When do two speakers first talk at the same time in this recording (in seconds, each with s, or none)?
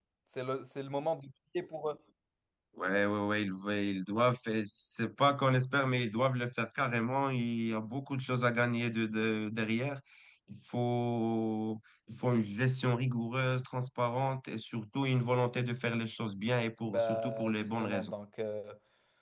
16.9 s